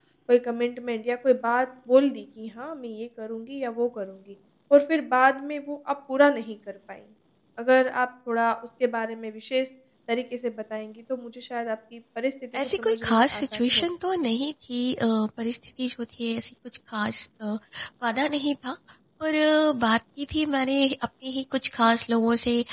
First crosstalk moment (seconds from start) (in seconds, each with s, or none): 12.5 s